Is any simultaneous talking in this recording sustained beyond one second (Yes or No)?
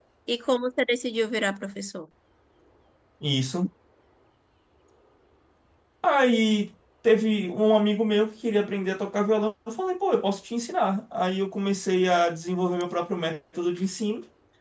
No